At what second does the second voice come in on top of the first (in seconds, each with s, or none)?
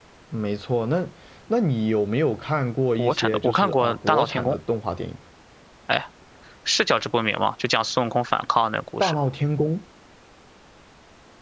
3.0 s